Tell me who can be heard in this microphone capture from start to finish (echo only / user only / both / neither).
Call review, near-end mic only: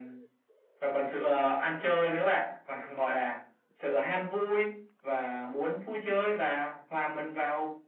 echo only